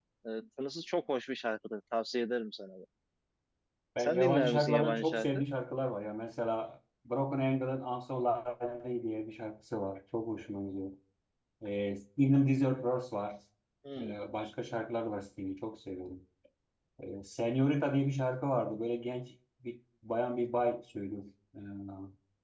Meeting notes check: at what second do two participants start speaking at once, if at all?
4.0 s

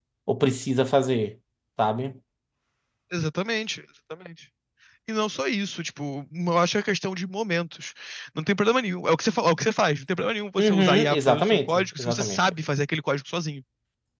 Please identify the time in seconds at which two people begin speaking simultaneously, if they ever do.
10.6 s

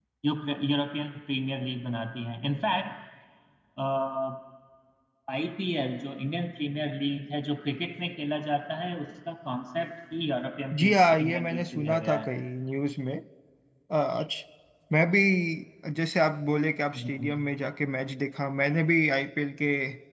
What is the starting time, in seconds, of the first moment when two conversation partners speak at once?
10.8 s

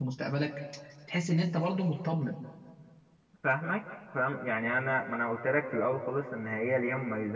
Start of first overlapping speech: none

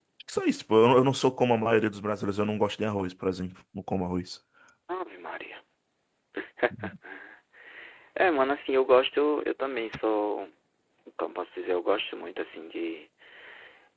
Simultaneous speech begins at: none

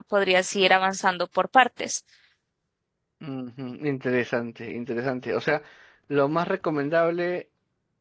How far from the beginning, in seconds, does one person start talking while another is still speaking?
none

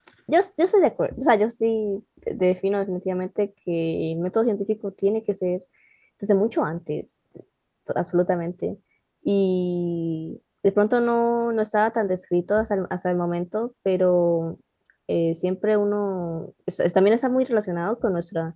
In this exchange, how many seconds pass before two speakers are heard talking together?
none

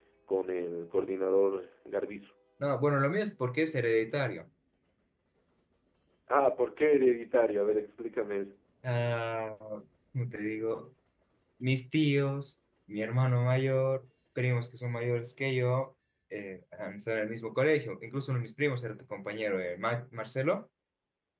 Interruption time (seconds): none

